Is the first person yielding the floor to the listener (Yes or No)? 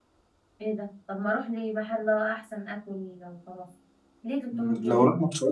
Yes